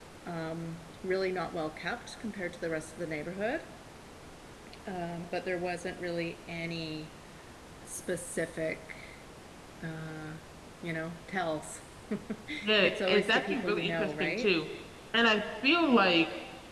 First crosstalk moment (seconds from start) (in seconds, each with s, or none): 12.8 s